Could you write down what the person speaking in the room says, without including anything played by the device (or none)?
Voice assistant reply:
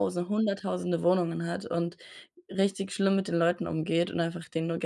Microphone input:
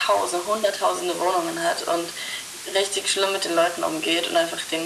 none